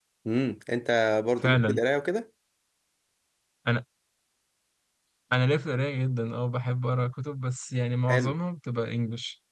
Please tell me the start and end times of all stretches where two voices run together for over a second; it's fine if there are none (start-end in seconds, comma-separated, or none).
none